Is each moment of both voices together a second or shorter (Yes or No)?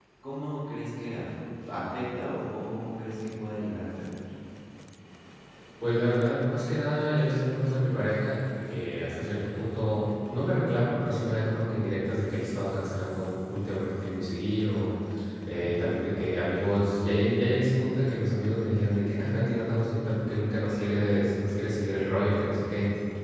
Yes